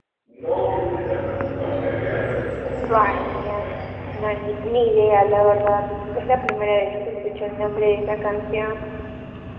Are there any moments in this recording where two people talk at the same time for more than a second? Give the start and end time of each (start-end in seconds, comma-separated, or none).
2.3-3.6